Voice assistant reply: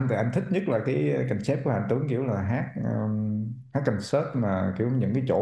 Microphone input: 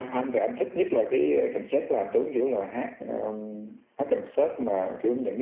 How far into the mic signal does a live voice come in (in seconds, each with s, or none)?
none